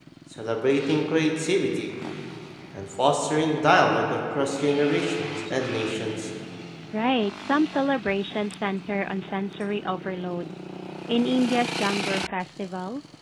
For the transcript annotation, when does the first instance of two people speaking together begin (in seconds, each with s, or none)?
none